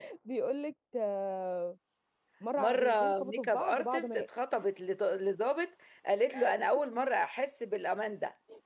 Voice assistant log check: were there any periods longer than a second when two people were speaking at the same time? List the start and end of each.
2.6-4.2

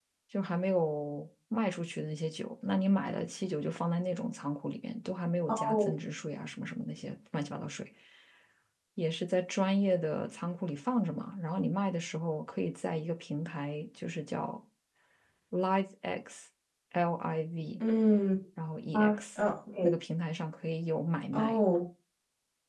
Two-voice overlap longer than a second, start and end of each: none

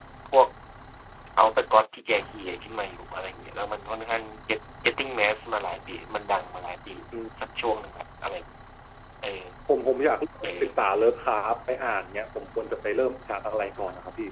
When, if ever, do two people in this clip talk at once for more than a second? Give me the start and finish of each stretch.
none

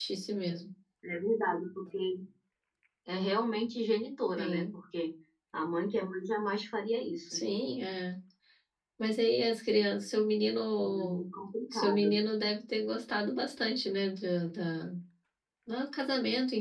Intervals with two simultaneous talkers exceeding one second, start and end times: none

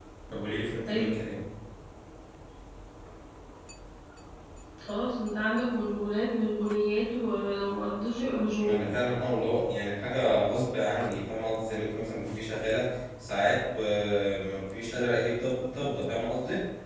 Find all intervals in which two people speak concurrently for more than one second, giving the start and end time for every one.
none

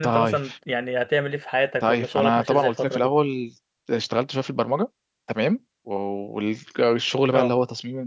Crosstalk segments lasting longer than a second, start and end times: 1.8-3.1

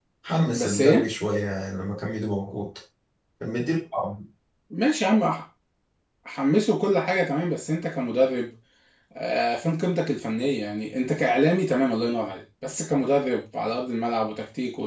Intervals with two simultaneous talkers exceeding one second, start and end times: none

